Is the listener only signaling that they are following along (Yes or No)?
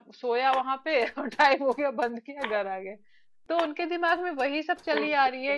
Yes